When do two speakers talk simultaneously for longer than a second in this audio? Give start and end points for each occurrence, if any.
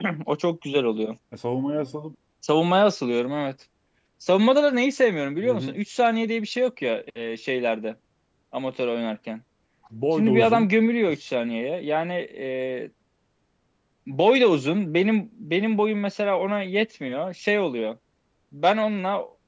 none

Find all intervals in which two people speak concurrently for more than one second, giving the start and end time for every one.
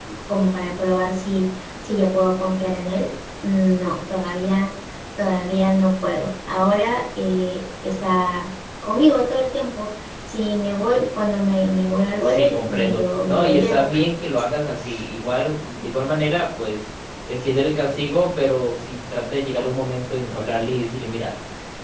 12.2-13.9

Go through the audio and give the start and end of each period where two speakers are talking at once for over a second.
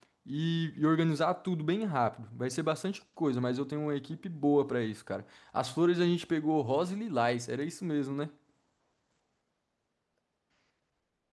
none

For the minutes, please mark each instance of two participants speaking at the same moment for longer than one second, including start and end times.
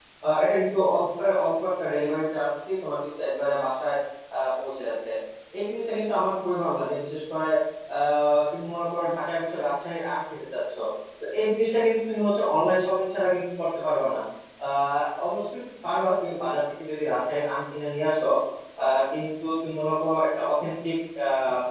none

